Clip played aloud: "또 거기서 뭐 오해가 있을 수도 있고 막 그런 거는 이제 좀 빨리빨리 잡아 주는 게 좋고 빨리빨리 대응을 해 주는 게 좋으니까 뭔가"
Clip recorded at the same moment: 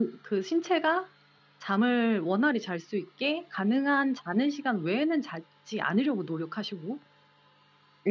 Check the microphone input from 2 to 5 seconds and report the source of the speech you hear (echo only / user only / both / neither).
user only